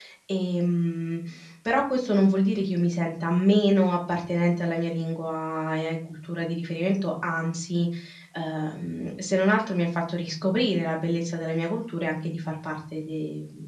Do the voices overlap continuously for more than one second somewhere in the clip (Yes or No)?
No